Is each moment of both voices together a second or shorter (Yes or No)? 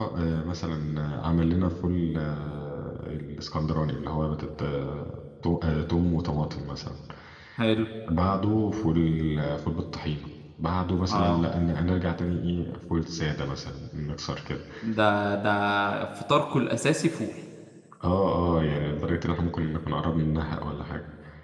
Yes